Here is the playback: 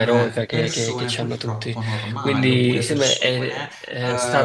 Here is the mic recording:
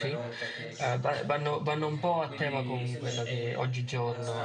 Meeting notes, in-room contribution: present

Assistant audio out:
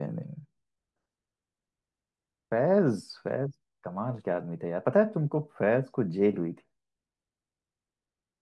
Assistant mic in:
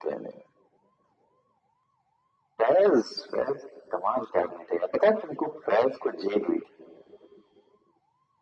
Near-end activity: none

